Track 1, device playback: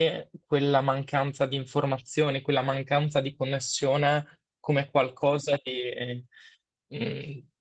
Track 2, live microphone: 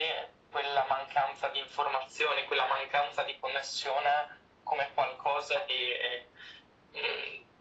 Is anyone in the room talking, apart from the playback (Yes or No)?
No